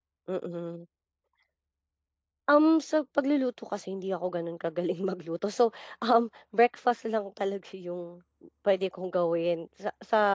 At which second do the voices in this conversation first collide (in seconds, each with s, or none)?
none